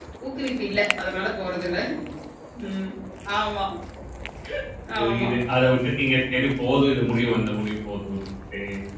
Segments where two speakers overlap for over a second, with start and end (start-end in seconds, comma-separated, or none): none